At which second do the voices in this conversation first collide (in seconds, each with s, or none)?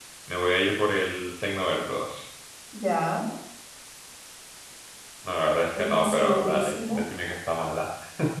5.7 s